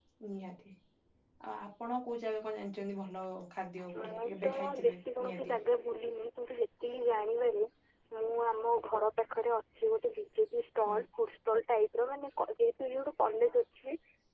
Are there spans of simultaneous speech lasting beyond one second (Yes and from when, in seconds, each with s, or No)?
Yes, from 3.9 s